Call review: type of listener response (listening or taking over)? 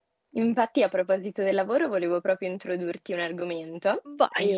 listening